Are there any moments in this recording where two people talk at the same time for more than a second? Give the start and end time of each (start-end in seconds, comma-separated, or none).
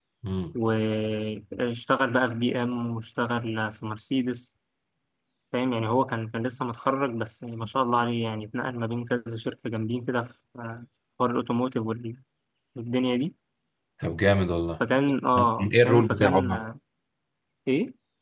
15.3-16.6